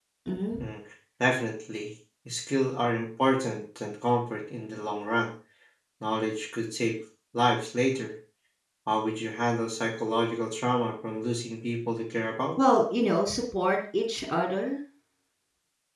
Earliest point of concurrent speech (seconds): none

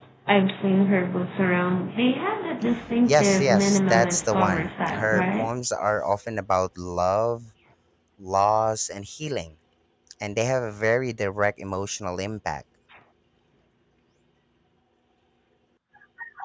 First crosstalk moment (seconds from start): 3 s

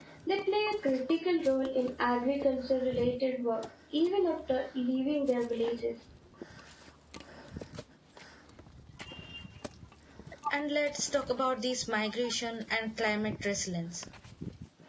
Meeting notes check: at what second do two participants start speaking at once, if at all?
none

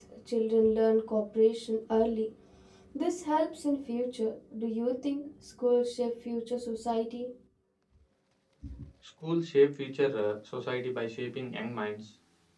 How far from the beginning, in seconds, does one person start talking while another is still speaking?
none

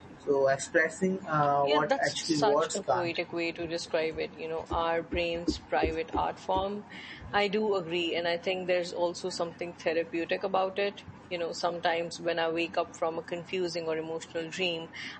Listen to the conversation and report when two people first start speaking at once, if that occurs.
2 s

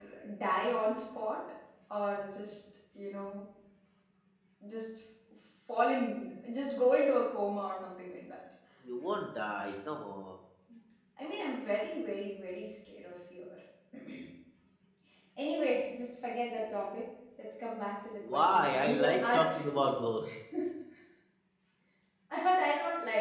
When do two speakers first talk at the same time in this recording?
18 s

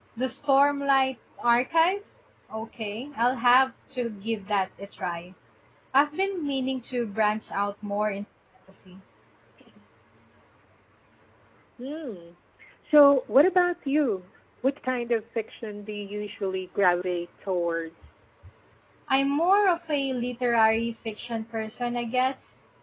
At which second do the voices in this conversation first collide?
none

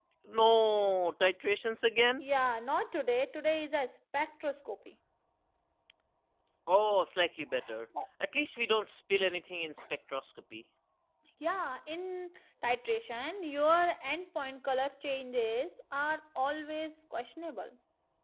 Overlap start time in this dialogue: none

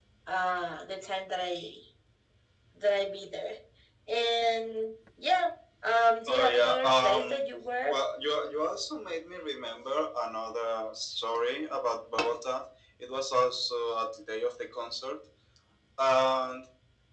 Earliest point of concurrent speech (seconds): 6 s

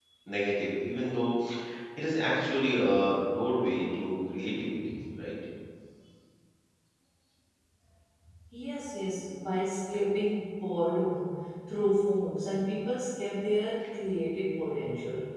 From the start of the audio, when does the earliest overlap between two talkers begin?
none

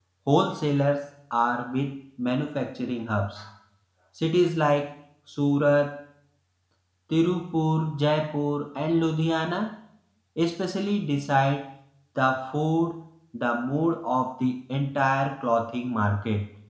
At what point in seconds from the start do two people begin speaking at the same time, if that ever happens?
none

